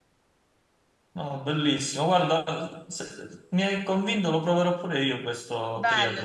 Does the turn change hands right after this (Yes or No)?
Yes